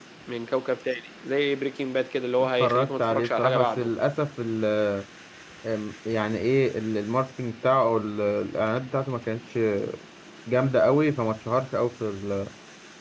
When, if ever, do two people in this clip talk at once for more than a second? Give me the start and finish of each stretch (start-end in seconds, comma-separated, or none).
2.4-3.9